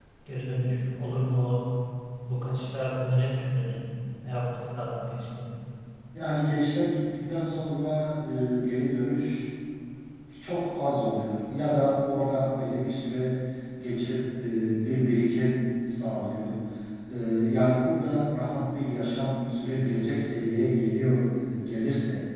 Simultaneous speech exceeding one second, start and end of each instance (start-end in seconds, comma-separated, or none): none